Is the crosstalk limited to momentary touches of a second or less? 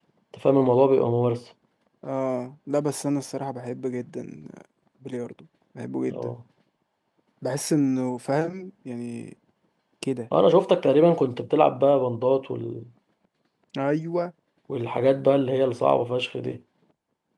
Yes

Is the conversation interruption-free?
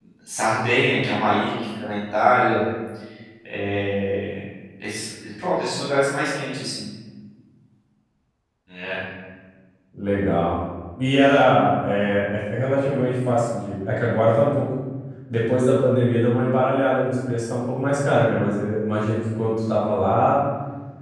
Yes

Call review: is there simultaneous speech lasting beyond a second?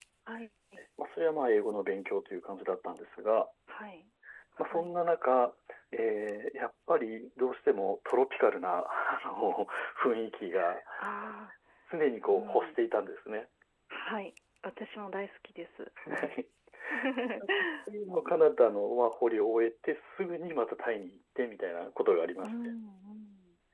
No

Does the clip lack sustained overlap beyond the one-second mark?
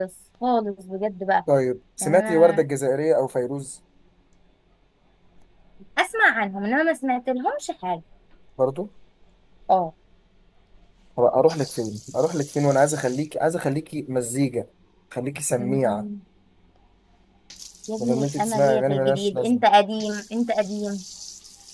No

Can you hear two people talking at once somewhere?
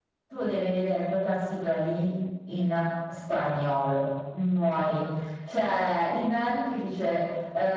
No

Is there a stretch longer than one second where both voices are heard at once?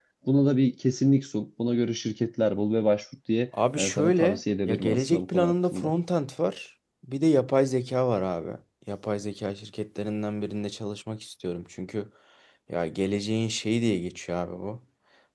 Yes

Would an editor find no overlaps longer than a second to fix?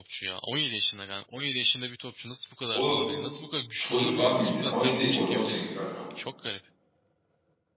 No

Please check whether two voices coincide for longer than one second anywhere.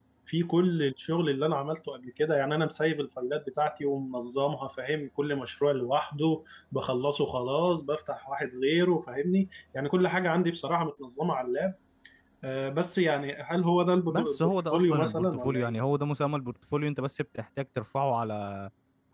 Yes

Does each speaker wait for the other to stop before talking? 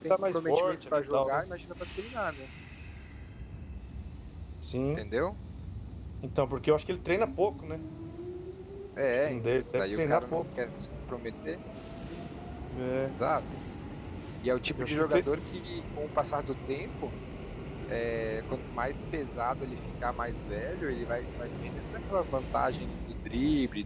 No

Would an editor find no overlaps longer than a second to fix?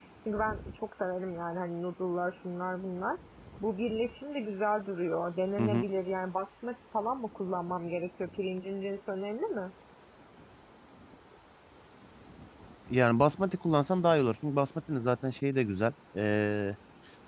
Yes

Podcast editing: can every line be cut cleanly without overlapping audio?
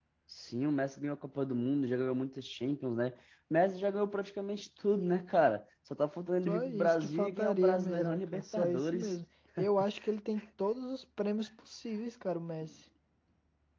No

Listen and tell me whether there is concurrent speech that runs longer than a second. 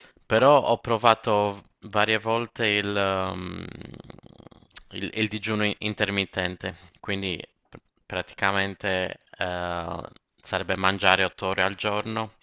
No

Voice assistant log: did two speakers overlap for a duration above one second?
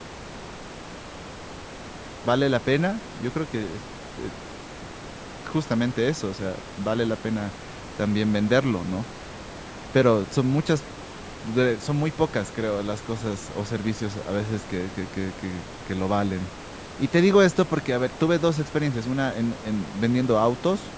No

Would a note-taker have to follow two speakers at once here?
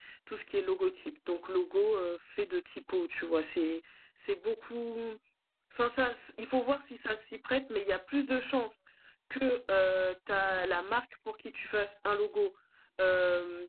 No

